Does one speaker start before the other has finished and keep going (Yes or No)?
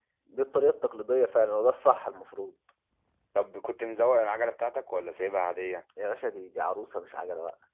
No